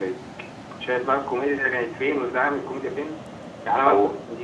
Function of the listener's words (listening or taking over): listening